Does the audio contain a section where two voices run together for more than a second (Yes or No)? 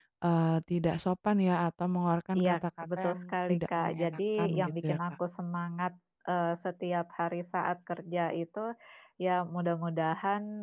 Yes